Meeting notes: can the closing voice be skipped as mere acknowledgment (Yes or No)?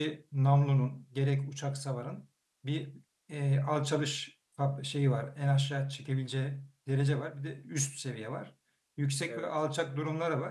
Yes